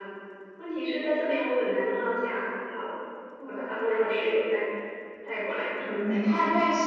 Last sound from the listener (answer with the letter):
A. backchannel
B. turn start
B